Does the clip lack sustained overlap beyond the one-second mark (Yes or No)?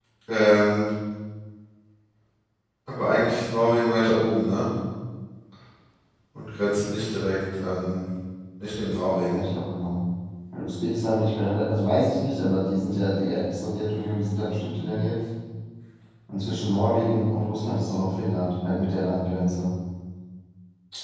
Yes